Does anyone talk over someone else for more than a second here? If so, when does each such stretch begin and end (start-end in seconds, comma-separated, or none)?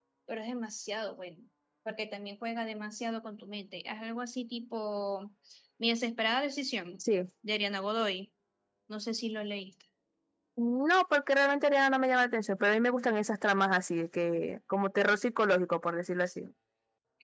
none